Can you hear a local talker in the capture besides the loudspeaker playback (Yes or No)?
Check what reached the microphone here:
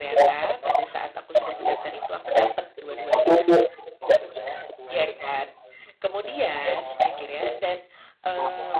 Yes